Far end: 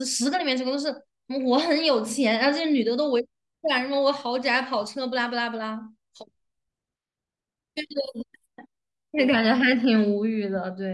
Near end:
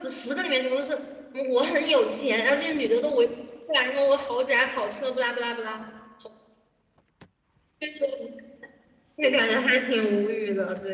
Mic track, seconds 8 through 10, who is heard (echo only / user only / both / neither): echo only